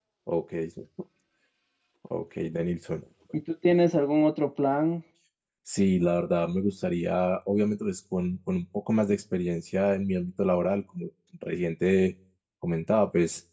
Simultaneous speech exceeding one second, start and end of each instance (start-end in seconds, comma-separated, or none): none